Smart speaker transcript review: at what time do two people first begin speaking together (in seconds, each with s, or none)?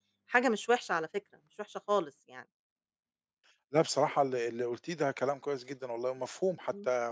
none